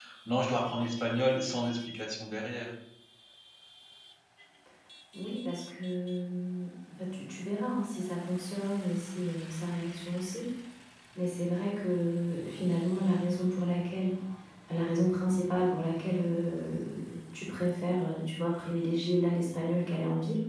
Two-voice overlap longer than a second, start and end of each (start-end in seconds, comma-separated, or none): none